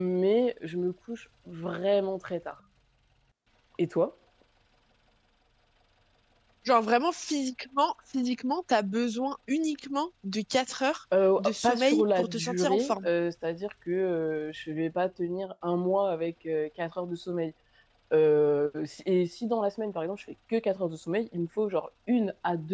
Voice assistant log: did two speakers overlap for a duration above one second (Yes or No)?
Yes